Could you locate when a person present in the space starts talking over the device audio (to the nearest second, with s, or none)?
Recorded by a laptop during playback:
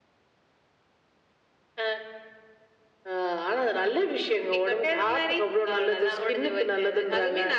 none